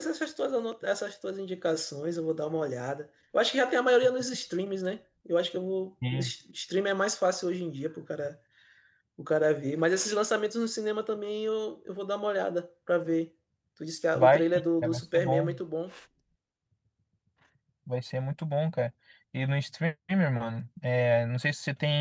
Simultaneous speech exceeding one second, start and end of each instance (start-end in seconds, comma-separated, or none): 14.2-15.6